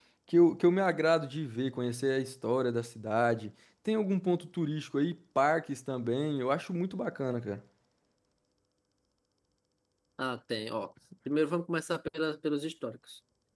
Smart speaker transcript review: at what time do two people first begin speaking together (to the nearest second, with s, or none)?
none